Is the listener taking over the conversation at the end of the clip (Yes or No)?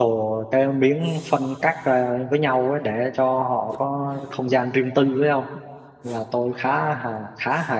No